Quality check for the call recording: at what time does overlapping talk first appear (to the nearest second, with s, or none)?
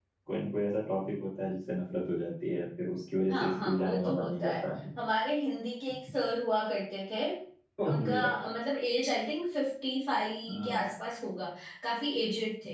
3 s